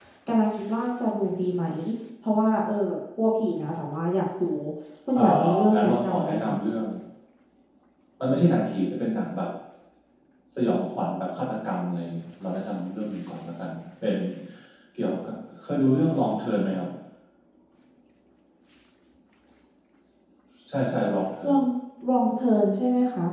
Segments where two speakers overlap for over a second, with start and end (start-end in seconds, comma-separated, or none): 5.2-6.5